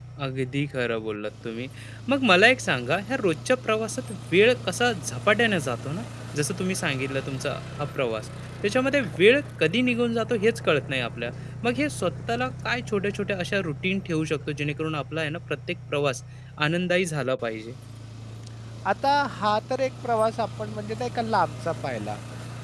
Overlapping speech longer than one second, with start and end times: none

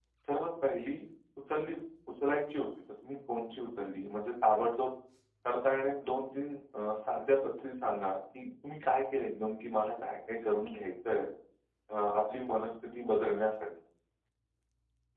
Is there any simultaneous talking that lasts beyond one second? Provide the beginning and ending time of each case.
none

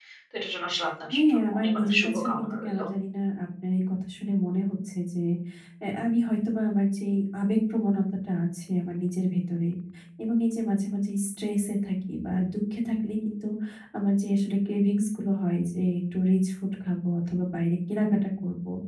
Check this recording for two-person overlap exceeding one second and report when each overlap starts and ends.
1.1-2.8

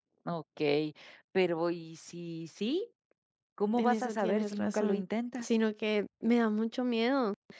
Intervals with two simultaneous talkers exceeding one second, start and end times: 3.8-5.0

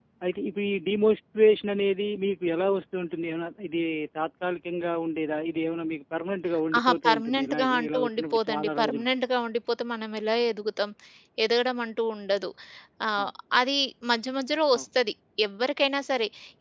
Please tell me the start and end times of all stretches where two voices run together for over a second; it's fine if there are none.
6.8-9.1

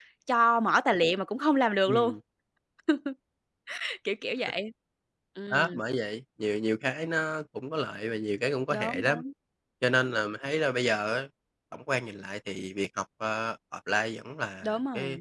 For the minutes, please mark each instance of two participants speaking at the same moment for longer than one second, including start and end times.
none

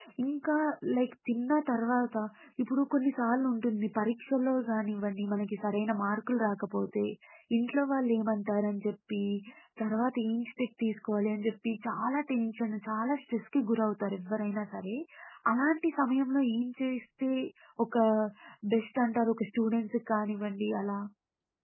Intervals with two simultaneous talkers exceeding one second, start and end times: none

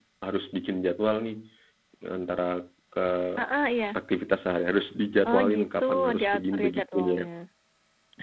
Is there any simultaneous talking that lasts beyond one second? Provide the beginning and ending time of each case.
5.3-7.2

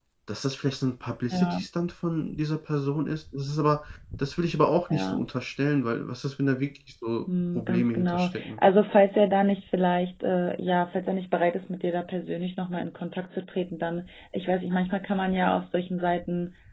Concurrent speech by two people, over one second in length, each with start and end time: 7.3-8.6

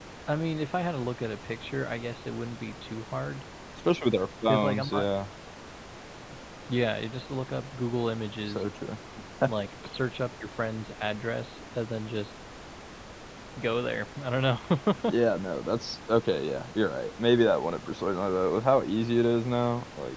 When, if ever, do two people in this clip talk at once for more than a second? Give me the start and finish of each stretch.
none

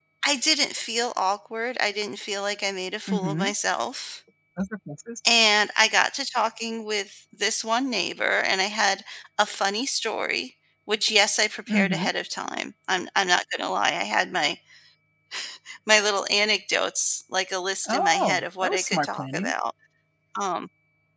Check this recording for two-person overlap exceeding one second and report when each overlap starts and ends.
17.9-19.5

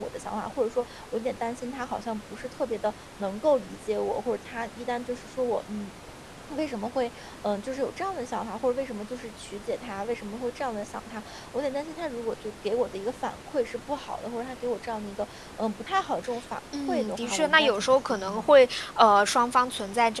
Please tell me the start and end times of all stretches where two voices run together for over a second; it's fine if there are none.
16.9-18.5

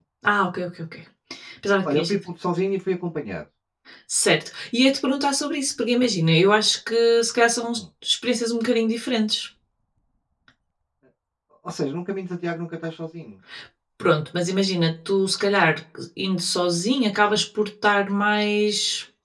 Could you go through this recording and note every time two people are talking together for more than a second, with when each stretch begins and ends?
none

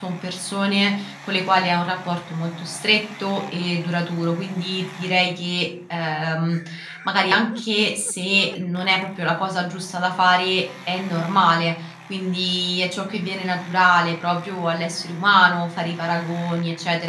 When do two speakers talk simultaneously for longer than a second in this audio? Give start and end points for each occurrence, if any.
none

